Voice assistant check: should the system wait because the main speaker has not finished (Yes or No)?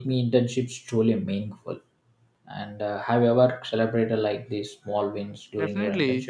No